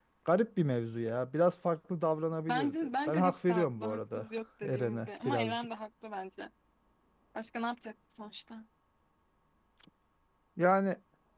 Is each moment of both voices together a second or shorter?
No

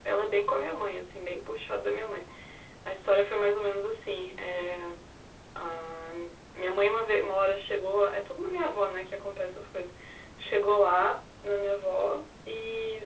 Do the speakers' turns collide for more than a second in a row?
No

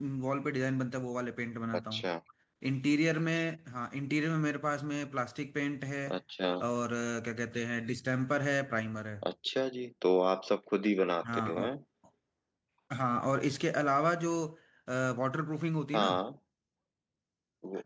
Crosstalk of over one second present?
No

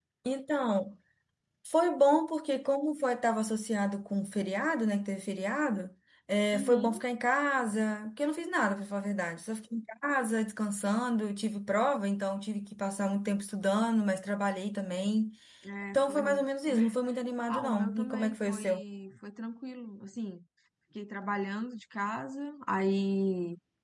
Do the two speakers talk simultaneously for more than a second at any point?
Yes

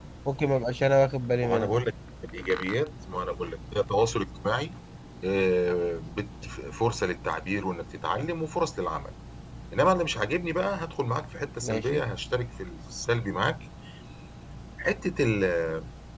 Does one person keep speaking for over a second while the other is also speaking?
No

